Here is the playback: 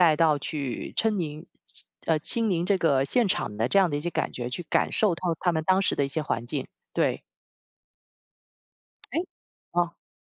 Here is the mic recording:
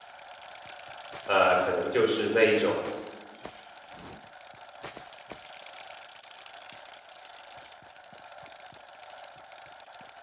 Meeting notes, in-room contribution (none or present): present